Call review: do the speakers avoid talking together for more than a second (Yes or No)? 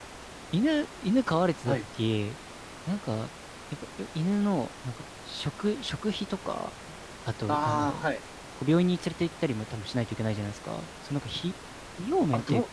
Yes